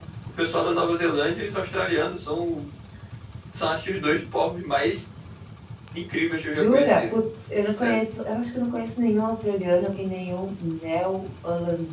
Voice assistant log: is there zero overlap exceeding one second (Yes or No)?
Yes